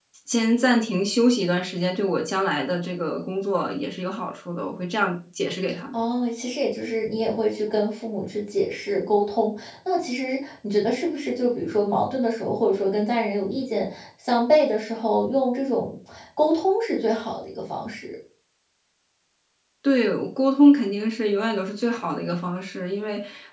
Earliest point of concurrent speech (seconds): none

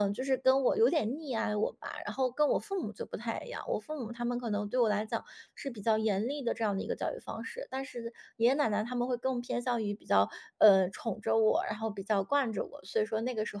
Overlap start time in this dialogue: none

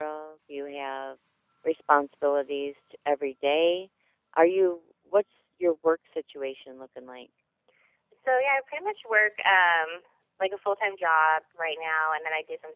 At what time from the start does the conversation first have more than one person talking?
none

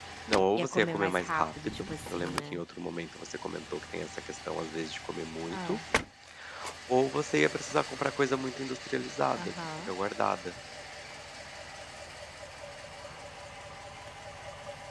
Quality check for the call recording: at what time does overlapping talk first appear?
0.6 s

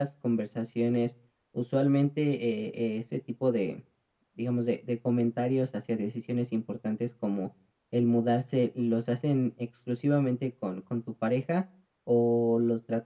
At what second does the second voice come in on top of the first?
none

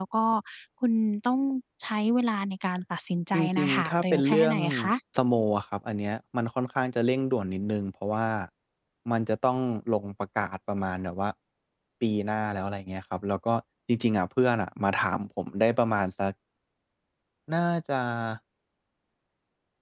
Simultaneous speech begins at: 3.3 s

